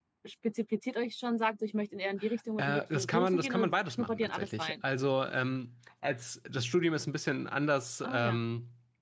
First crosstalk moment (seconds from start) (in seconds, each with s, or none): 2.6 s